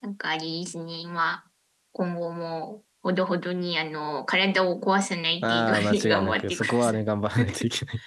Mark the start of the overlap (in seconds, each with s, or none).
5.4 s